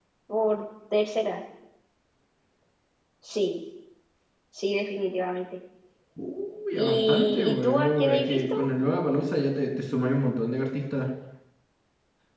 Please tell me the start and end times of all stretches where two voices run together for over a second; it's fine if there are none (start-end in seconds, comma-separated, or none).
6.8-8.7